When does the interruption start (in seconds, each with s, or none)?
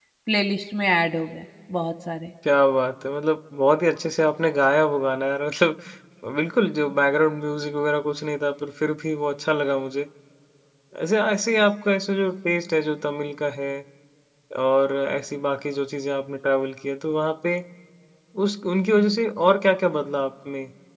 none